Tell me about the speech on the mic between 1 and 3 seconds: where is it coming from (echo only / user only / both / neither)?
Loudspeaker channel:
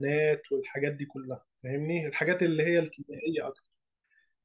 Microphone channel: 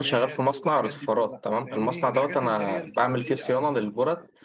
both